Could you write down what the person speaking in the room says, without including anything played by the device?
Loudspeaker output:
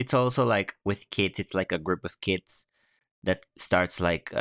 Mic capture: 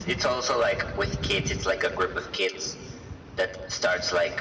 none

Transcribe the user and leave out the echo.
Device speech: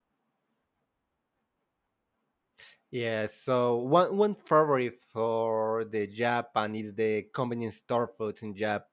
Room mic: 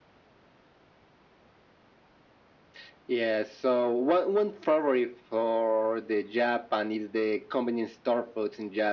none

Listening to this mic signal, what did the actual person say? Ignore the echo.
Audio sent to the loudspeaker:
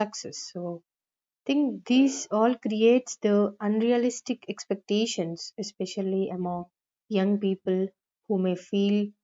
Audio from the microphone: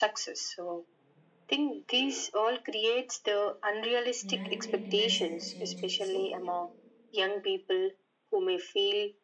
reality demands a change. So,

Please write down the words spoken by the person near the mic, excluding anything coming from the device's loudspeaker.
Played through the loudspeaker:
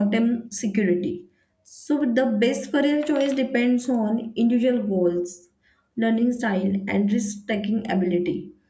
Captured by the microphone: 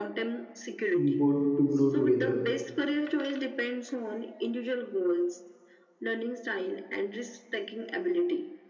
both to grow together.

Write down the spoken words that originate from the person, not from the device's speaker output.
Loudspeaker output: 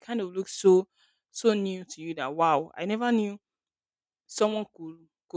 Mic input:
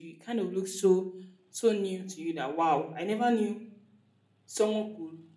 none

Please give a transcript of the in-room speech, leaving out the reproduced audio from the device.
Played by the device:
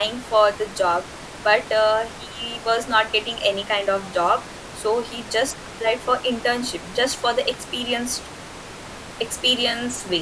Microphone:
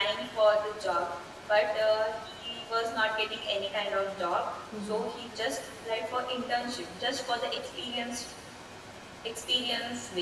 Mhm.

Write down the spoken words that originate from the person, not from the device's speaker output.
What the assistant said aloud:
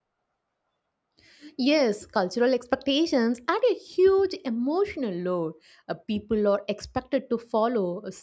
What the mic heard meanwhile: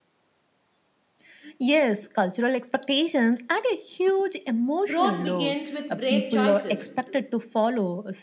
Growth begins with brave choices.

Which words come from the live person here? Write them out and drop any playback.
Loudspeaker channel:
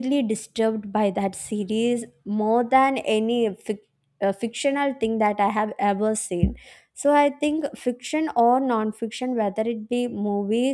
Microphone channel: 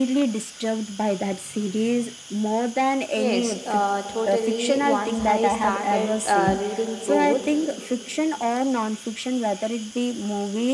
Yes, uh, totally. Once I started uh, reading both,

